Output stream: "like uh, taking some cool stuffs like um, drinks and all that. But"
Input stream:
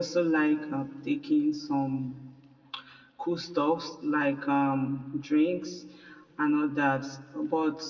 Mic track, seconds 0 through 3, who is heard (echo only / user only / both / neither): echo only